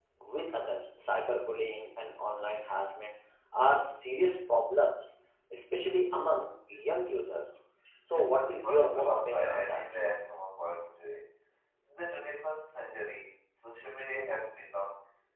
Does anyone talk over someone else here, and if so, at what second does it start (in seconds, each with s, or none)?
8.1 s